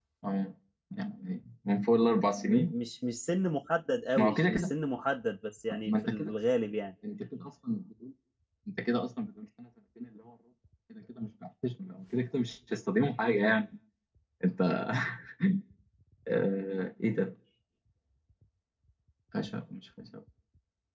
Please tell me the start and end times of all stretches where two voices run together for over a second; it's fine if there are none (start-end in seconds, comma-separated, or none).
none